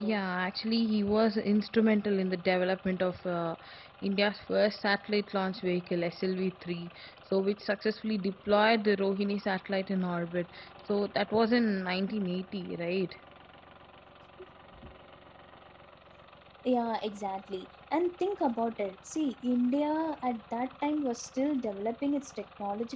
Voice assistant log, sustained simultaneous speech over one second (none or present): none